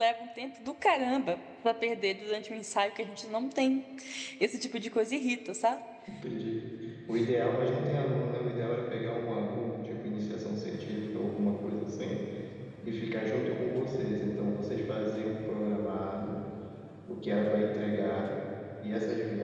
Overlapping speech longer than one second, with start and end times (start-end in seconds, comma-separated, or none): none